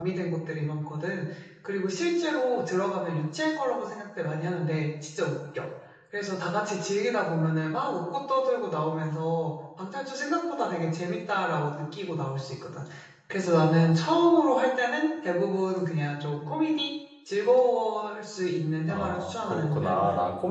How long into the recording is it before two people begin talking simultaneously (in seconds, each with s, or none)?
18.9 s